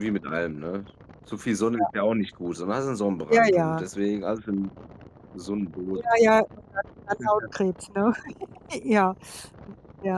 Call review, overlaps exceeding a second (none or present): none